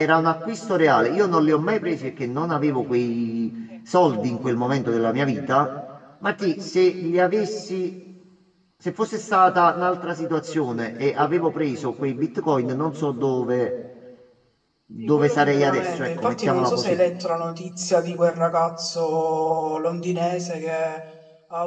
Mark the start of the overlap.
15.0 s

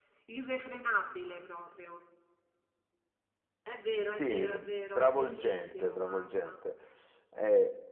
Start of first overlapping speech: 4.1 s

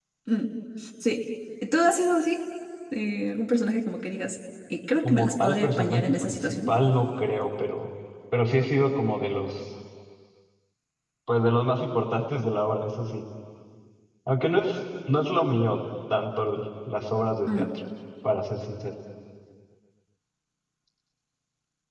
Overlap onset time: 5.0 s

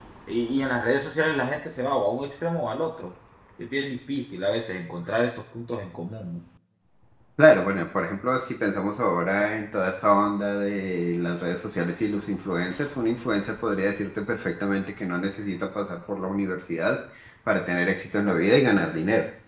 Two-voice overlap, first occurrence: none

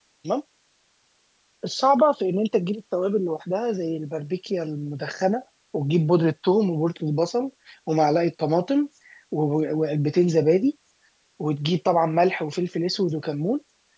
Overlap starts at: none

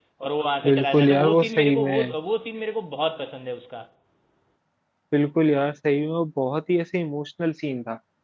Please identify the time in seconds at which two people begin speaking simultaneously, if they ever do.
0.7 s

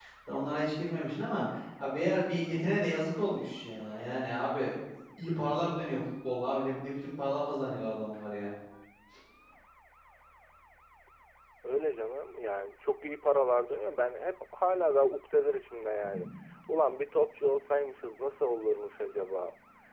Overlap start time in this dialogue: none

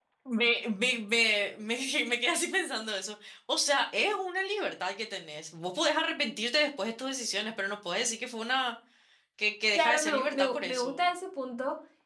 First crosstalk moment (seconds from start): 9.7 s

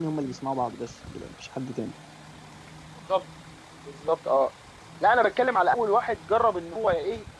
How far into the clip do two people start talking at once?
none

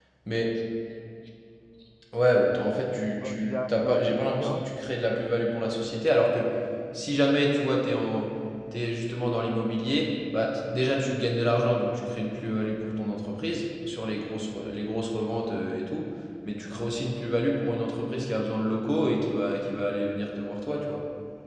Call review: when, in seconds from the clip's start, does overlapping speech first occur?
3.2 s

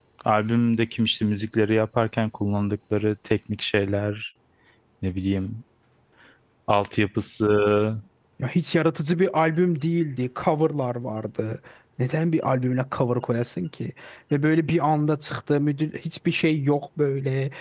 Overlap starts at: none

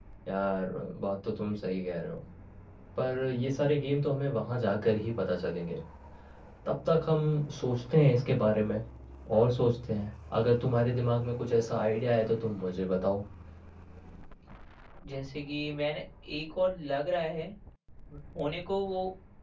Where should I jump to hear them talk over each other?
none

